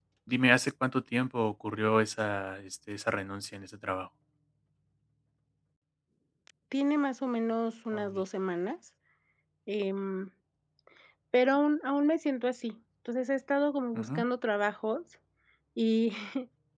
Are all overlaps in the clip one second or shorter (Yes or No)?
Yes